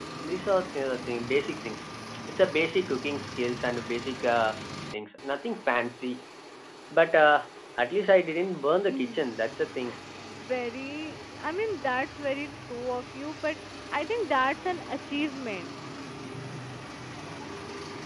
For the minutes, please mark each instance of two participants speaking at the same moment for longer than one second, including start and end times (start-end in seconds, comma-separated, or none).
none